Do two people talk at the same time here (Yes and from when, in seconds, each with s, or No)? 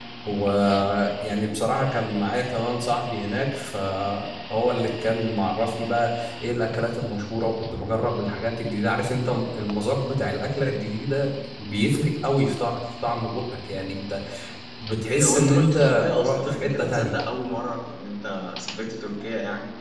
Yes, from 15.1 s